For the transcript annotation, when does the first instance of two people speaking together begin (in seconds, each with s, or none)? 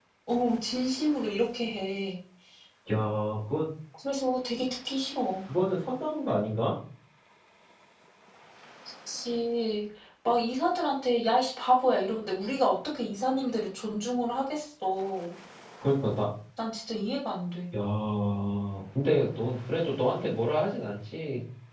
none